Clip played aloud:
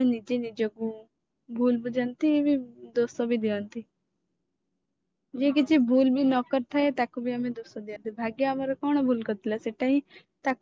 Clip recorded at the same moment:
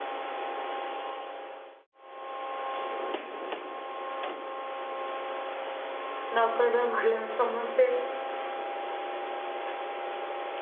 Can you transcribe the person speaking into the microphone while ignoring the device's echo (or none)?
ନ କହିବା ହିଁ ଭଲ ସମସ୍ତେ